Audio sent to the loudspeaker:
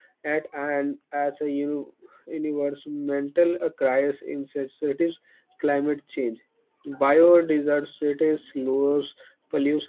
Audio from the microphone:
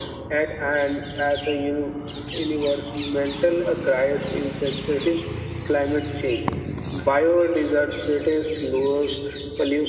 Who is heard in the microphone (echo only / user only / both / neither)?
echo only